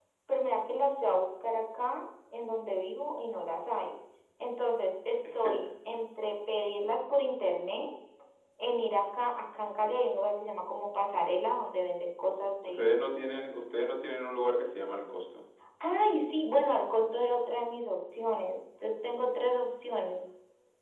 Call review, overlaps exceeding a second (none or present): none